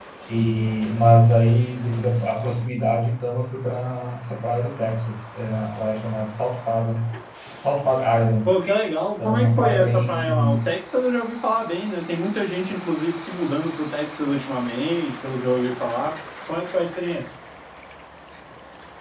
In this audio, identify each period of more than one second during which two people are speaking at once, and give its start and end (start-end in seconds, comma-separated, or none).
9.2-10.6